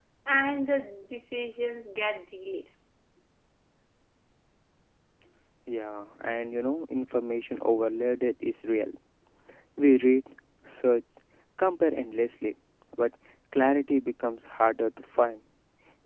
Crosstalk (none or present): none